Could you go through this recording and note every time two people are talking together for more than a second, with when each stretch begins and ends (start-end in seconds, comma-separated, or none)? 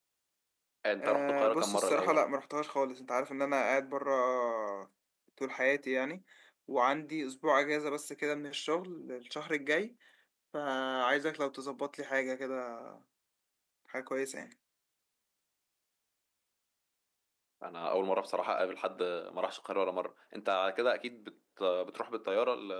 1.0-2.2